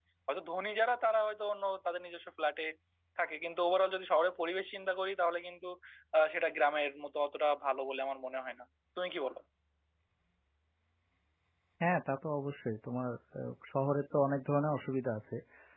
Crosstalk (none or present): none